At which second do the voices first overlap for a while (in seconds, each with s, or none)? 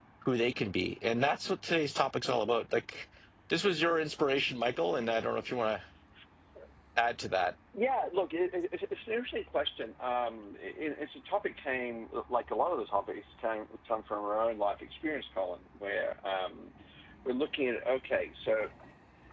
none